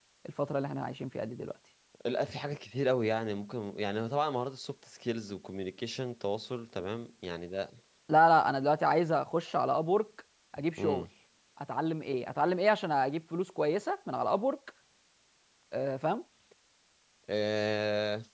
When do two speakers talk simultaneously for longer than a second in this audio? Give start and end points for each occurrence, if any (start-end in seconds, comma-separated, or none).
none